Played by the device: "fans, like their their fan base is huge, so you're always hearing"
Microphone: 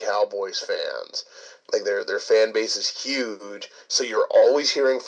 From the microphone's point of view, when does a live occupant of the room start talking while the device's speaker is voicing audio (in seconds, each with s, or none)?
none